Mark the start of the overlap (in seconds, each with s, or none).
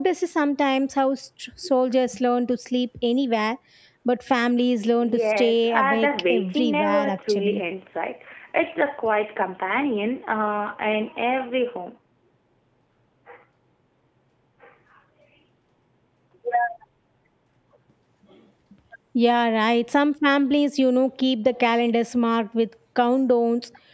5.0 s